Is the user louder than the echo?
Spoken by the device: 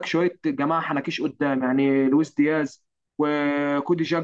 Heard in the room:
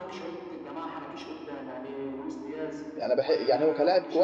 Yes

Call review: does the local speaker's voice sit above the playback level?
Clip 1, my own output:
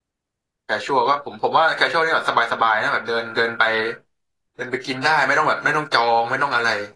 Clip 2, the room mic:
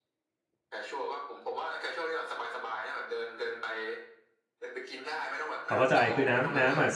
Yes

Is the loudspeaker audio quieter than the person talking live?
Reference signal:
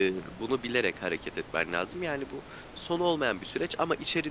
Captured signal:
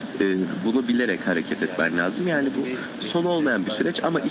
No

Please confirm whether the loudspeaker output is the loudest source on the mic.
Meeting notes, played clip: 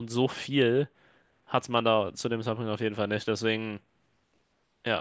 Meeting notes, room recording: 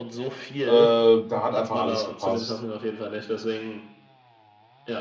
No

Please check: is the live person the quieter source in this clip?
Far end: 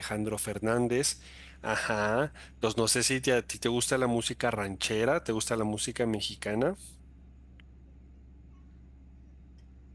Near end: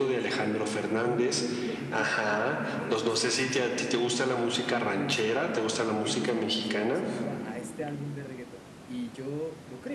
Yes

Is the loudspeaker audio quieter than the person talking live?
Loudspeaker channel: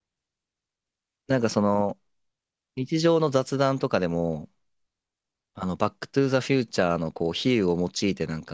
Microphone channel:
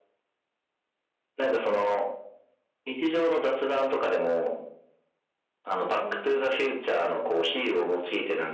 No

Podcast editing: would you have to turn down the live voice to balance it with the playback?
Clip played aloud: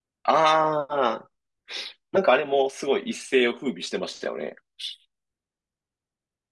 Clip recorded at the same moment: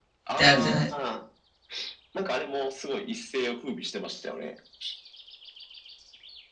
Yes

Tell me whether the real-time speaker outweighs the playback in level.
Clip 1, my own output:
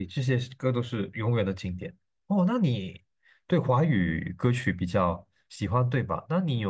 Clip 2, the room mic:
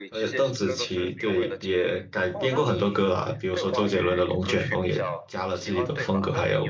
Yes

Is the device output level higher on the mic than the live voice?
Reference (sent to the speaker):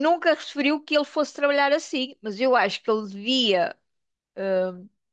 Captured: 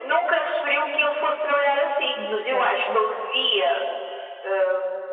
Yes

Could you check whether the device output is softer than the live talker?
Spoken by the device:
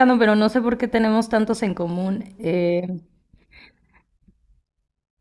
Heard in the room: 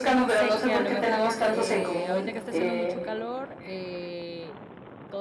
No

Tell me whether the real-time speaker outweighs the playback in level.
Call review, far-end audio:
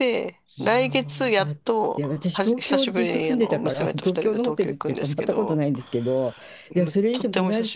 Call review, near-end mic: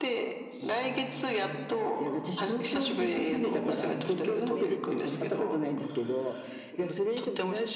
No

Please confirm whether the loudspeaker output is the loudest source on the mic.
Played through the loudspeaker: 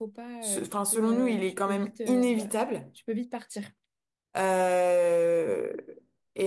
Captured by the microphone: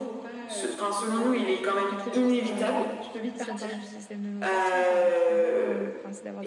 Yes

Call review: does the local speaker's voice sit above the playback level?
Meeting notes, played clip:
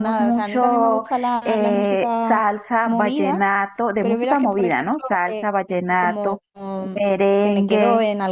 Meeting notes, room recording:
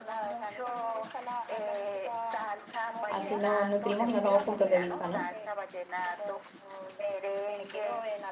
Yes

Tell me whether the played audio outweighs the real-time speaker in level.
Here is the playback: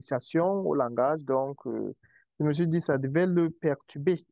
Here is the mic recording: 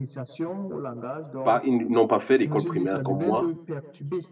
No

